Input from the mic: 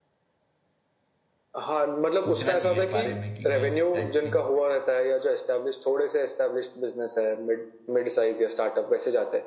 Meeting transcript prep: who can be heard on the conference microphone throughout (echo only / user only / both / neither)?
both